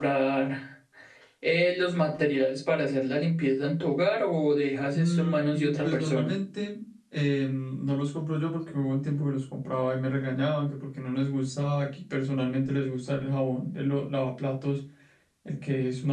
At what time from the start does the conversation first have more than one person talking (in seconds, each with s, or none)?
4.9 s